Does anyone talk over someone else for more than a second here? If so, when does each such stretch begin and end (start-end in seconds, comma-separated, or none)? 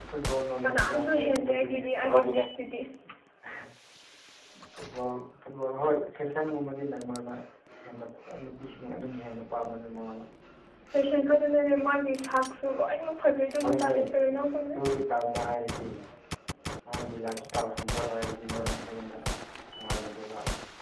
0.6-2.1